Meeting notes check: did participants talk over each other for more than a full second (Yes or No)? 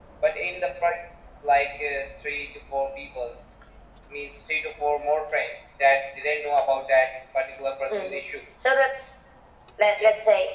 No